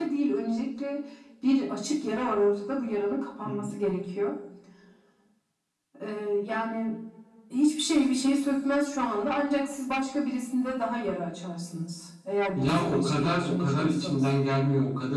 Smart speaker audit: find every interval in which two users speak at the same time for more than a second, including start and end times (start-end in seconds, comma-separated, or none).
12.6-14.3